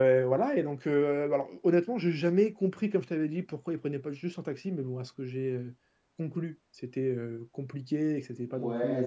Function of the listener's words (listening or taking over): taking over